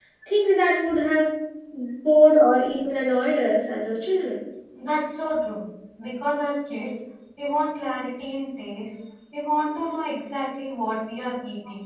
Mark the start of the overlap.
none

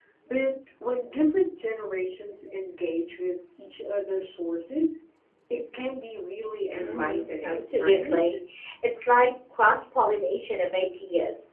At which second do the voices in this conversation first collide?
6.8 s

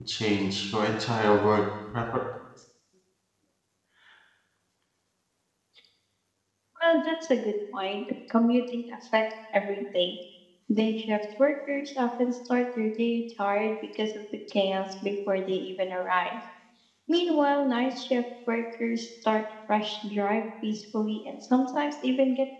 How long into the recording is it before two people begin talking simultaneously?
none

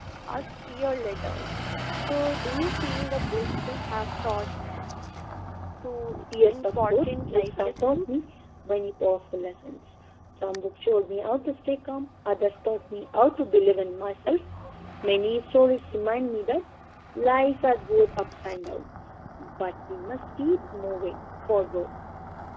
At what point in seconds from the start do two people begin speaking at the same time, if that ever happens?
6.5 s

